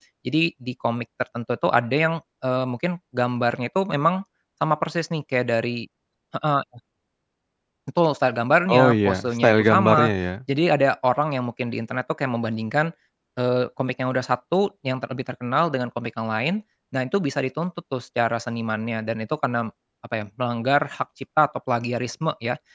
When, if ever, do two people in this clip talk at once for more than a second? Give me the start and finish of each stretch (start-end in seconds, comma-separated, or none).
8.8-10.1